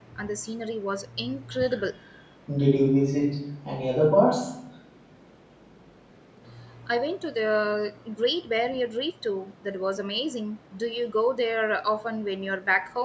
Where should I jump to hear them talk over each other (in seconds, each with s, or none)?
none